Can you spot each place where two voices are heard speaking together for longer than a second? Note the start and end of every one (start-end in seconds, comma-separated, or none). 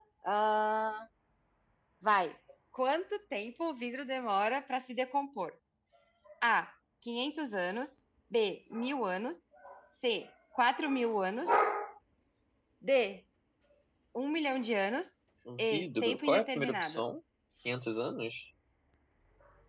15.6-17.0